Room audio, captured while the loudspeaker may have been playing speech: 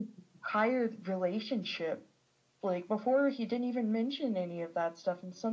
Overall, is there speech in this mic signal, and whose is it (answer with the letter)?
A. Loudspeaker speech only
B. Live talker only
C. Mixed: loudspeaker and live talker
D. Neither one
A